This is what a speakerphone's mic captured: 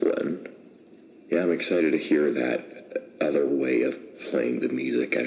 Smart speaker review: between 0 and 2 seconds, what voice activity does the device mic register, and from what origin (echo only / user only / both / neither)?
echo only